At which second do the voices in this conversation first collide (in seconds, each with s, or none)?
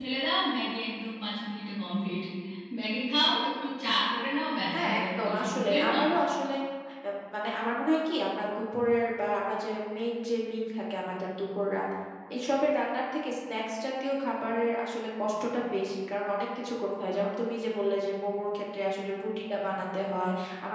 4.7 s